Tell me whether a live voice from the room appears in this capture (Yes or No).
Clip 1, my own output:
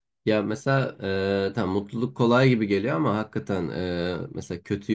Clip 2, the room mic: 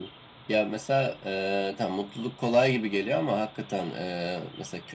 No